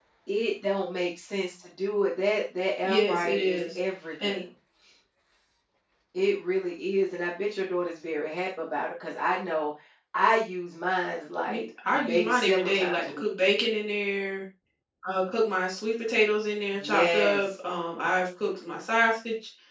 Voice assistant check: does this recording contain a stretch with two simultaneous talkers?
Yes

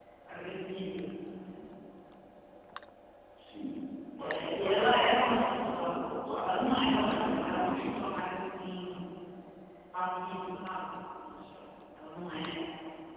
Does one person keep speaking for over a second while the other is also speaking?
Yes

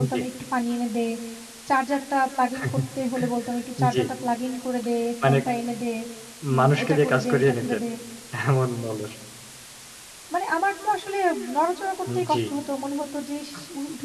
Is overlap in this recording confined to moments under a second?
No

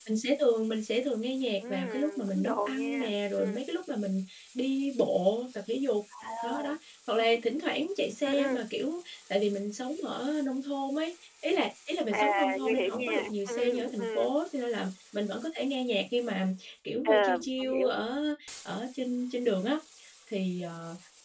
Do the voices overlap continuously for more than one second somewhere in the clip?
Yes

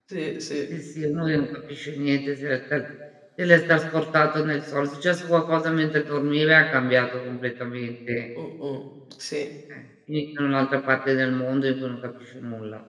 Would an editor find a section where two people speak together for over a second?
No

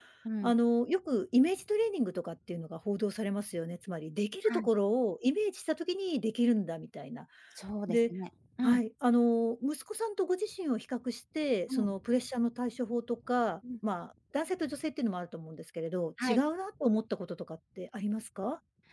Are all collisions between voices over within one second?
Yes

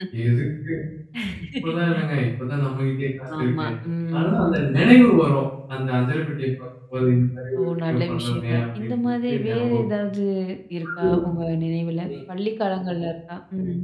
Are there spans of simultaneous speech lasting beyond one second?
Yes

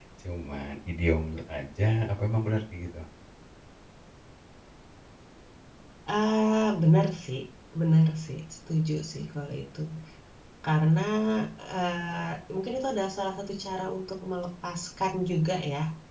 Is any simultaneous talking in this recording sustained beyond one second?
No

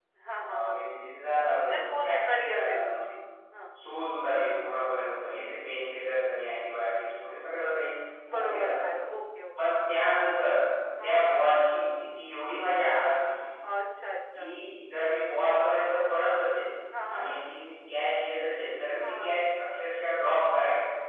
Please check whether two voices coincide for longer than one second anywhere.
Yes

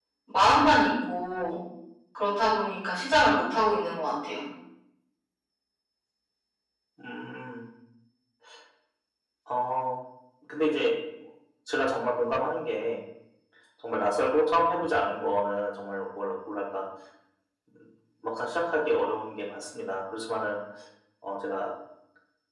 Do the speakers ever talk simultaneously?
No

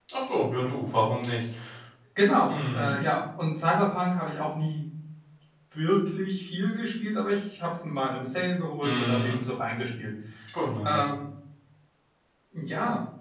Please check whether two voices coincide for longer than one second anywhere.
No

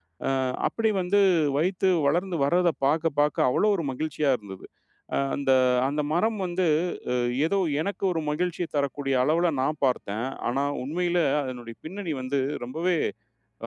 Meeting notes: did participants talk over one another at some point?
No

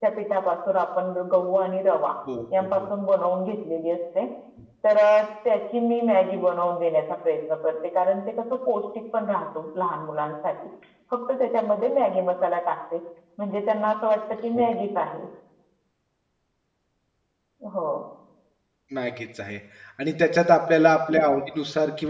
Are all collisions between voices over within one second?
Yes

